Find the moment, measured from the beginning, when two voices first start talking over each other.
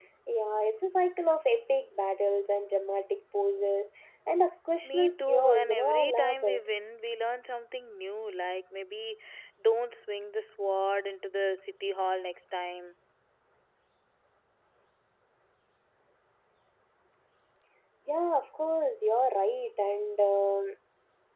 4.8 s

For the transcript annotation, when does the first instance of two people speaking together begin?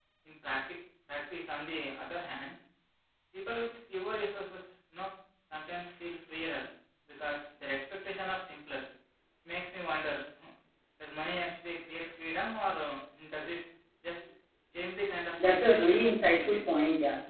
15.4 s

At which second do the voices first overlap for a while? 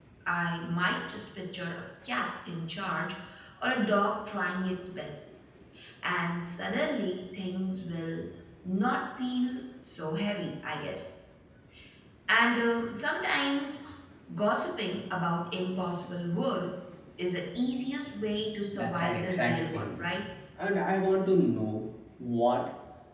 18.7 s

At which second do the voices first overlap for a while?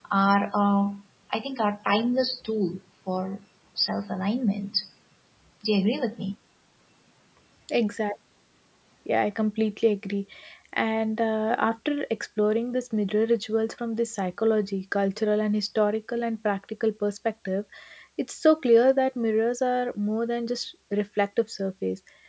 none

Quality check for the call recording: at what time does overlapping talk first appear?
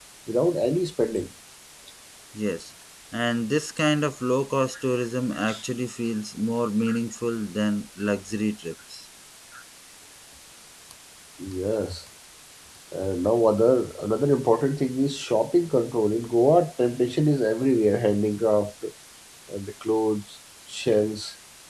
none

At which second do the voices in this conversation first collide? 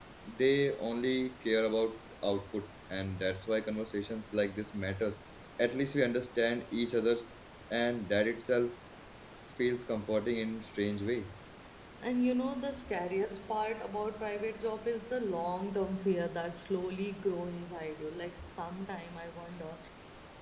none

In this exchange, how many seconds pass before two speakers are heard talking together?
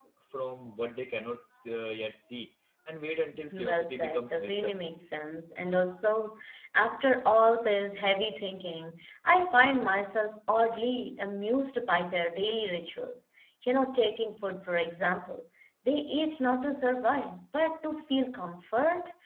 3.3 s

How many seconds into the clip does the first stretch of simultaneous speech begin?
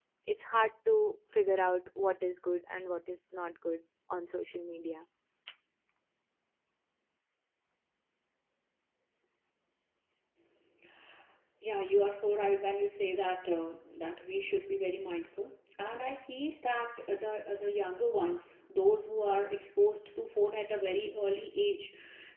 none

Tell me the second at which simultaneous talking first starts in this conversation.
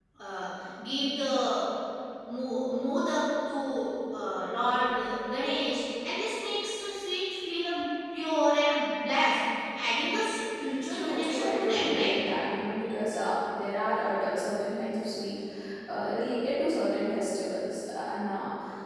10.9 s

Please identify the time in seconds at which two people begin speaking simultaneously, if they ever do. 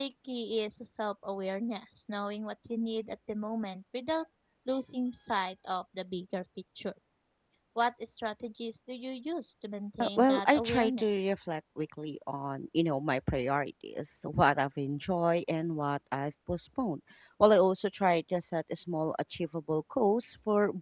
10.0 s

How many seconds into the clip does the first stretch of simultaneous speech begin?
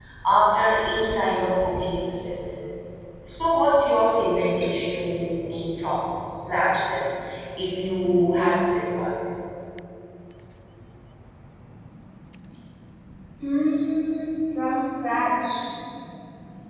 none

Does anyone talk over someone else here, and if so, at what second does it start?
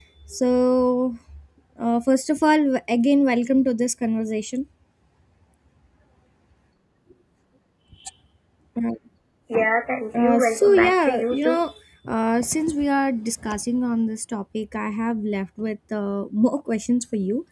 10.2 s

